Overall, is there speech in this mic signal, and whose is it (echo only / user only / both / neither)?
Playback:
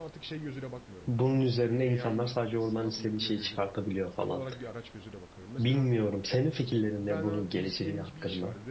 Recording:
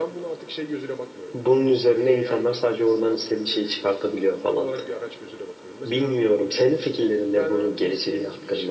echo only